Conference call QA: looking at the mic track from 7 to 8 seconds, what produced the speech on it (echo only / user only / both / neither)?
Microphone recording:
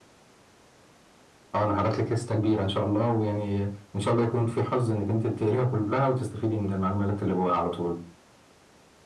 echo only